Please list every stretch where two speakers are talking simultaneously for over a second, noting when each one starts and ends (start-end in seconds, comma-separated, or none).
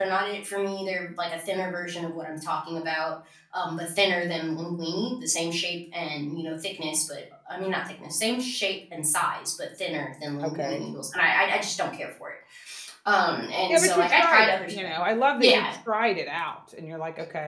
13.7-14.9